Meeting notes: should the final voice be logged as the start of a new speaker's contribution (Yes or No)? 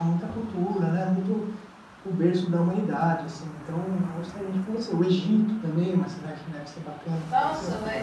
Yes